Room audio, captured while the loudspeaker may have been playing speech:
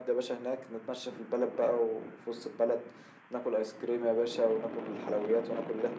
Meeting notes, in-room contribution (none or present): none